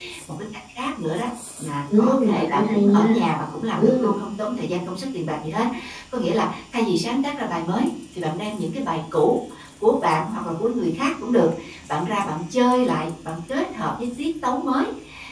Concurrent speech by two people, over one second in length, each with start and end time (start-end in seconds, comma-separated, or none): 1.9-3.1